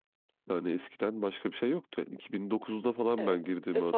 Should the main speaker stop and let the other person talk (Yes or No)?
Yes